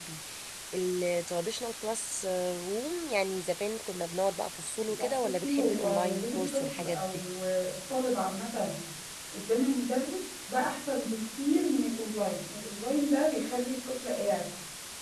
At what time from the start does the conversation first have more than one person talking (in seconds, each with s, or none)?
5.0 s